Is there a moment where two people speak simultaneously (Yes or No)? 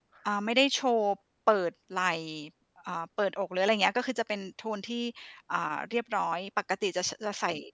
No